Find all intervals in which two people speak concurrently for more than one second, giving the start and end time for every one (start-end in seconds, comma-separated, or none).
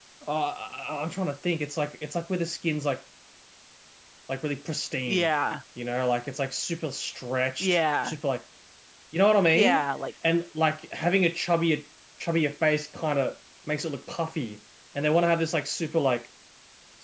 none